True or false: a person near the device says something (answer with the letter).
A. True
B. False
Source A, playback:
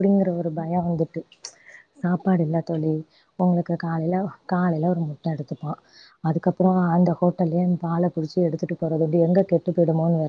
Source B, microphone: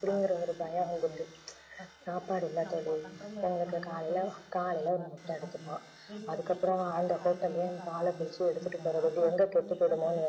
A